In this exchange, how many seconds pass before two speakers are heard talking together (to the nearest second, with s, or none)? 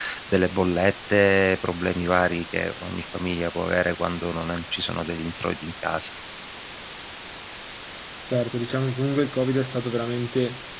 none